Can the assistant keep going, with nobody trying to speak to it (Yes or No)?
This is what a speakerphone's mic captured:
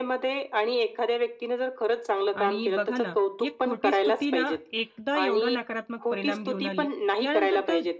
No